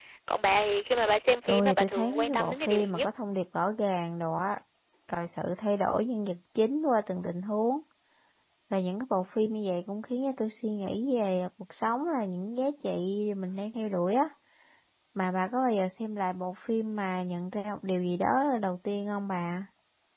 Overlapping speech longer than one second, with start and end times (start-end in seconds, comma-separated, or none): 1.5-3.1